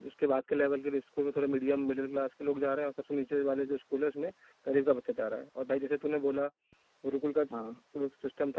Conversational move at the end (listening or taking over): listening